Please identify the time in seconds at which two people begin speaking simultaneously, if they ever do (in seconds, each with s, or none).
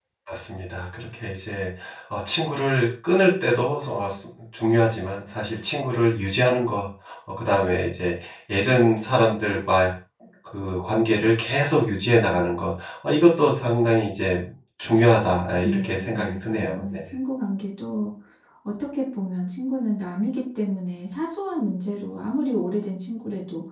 15.6 s